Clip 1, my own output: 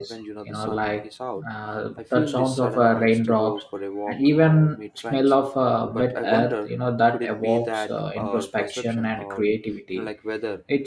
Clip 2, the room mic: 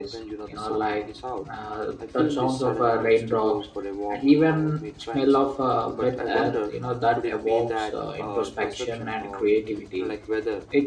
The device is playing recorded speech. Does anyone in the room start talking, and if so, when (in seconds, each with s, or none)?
none